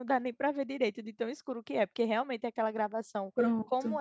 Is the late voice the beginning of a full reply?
No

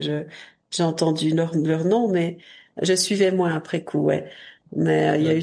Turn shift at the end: No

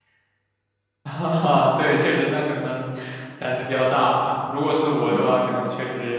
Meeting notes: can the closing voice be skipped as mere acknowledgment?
Yes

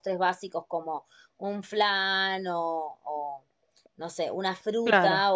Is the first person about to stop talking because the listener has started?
No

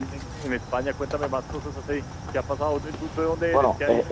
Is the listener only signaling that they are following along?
No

